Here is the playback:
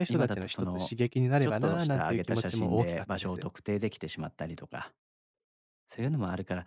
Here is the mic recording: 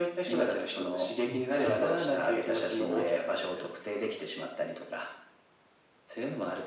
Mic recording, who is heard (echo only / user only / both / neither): both